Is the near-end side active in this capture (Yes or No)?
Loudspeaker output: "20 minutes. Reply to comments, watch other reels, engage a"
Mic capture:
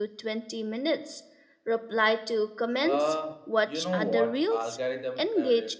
Yes